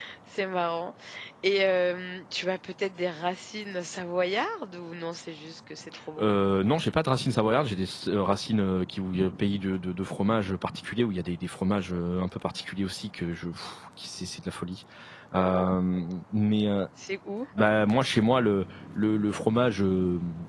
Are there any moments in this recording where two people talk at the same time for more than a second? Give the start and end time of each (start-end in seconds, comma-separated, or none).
none